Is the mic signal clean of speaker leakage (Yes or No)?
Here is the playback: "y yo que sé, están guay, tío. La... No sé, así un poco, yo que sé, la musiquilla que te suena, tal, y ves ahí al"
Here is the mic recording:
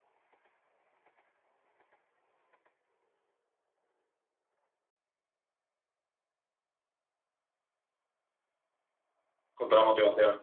Yes